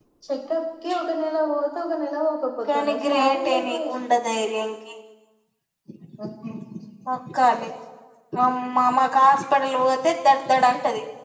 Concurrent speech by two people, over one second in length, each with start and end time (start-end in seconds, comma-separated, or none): 2.7-4.3